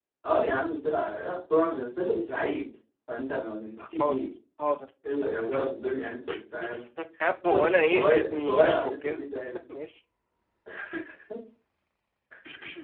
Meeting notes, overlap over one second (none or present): present